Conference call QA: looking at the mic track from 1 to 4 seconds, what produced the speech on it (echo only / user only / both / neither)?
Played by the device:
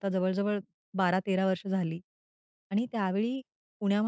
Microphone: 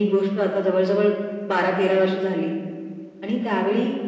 echo only